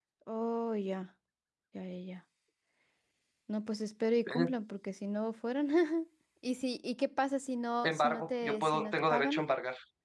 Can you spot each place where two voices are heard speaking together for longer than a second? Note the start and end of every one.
7.8-9.5

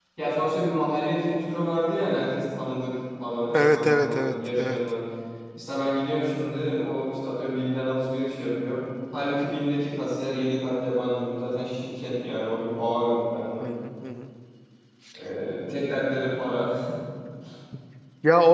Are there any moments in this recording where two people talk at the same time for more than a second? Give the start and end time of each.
3.5-4.8

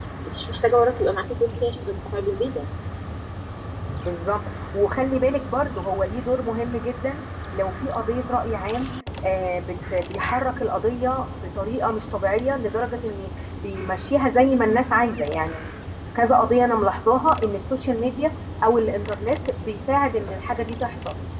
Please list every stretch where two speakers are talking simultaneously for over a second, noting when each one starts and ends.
none

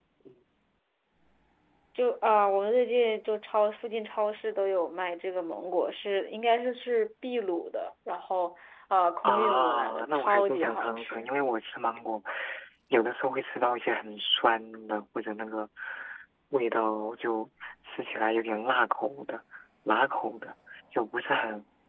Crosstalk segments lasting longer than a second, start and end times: 9.2-11.3

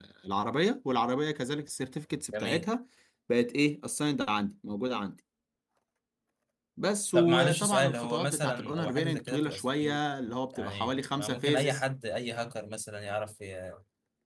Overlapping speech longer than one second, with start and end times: 7.1-10.0, 10.5-11.8

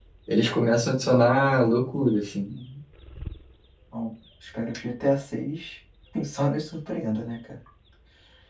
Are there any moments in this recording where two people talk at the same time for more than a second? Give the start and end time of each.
none

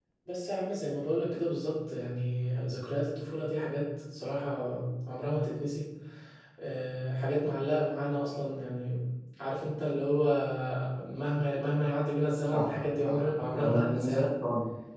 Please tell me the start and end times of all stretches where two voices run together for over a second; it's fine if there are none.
13.0-14.2

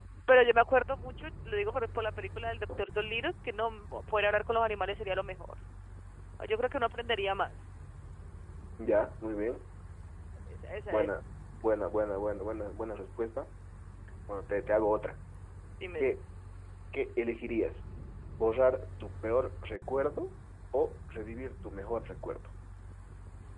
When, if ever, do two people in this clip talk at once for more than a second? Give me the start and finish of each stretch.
none

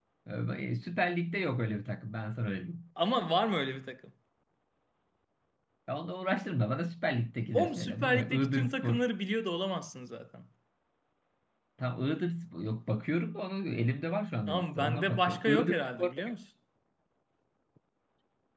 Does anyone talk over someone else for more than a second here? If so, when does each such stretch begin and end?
7.5-9.0, 14.5-16.1

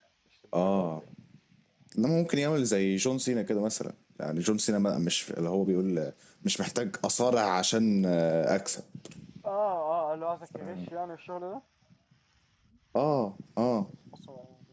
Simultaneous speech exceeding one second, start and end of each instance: none

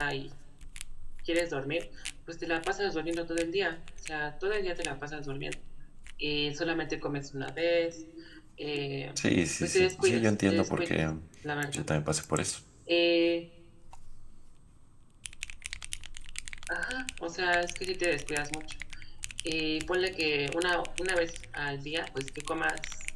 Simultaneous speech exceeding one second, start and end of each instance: 9.6-11.0

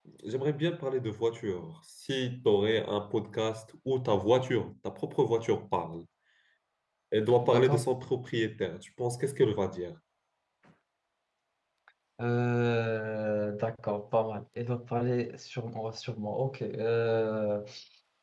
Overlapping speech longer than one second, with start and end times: none

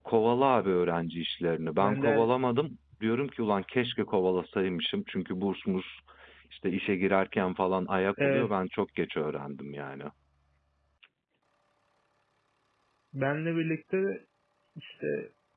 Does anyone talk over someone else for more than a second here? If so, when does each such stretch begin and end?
none

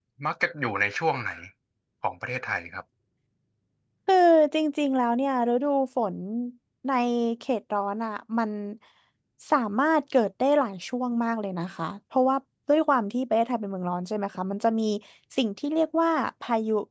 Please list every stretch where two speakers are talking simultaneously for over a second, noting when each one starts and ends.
none

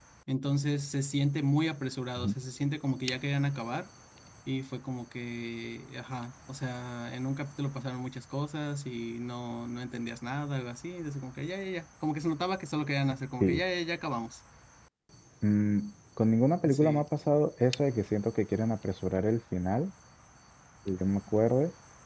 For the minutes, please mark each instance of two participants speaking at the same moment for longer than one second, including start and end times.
none

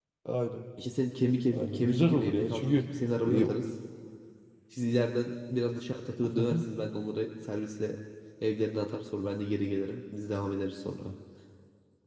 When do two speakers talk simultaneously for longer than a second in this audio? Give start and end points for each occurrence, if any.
1.5-2.7

